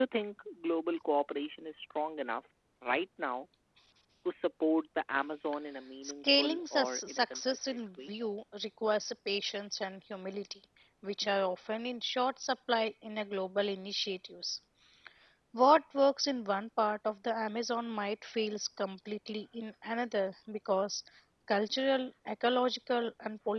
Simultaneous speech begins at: 6.0 s

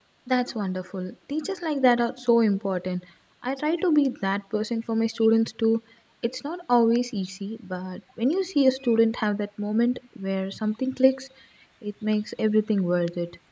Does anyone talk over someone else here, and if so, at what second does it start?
none

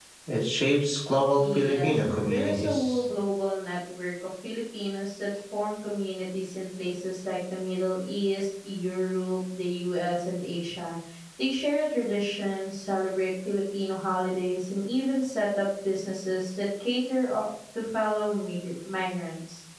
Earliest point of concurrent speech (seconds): 1.4 s

